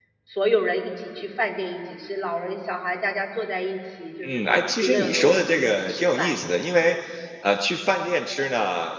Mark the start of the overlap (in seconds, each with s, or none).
4.2 s